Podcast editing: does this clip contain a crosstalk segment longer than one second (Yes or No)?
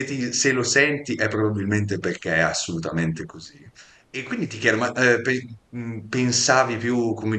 No